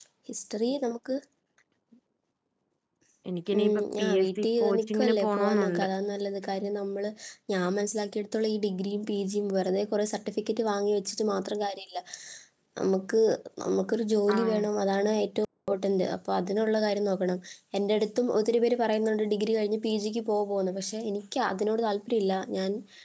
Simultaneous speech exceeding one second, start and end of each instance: 3.6-5.9

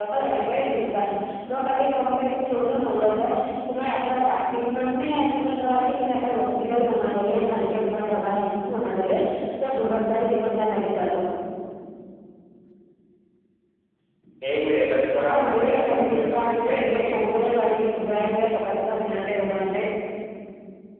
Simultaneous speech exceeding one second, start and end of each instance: 15.2-17.0

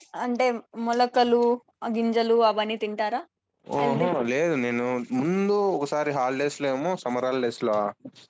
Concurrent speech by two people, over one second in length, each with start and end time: none

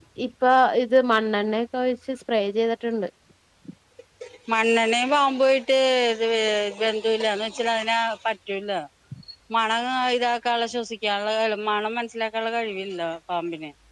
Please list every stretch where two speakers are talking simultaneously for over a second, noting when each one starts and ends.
none

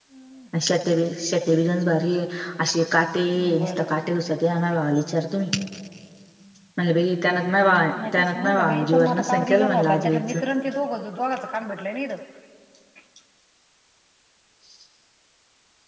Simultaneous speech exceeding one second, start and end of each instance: 8.1-10.3

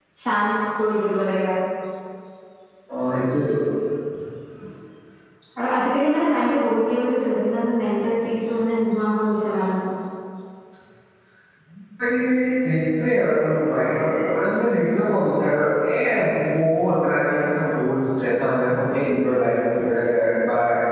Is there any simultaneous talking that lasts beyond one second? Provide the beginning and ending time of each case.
none

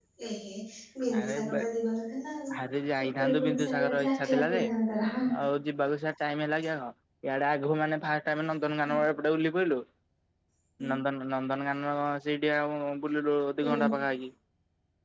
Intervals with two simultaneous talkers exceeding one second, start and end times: 3.2-4.6

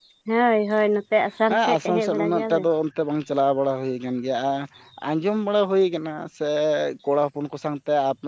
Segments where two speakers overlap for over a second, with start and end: 1.5-2.7

